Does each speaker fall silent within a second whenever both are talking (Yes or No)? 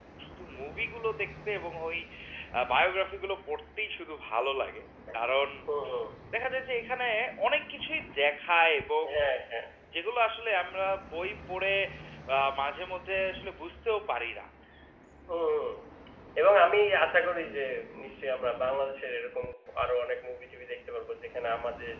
Yes